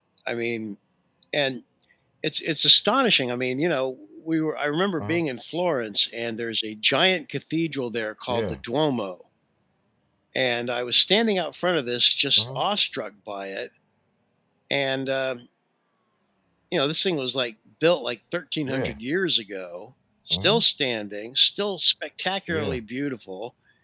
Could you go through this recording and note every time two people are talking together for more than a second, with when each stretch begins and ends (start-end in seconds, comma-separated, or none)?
none